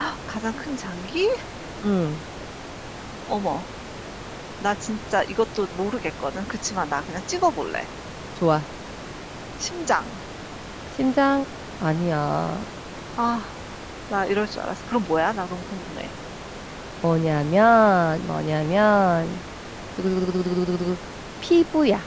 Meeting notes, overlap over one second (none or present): none